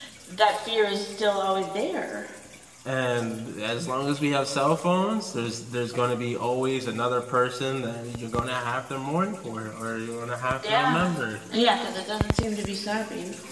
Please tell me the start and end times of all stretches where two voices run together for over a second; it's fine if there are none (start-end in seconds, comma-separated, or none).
none